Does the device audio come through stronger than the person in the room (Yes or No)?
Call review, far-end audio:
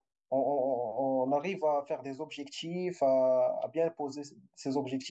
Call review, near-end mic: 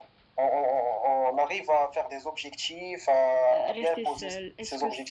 Yes